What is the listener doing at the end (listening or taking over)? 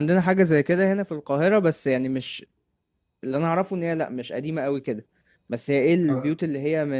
listening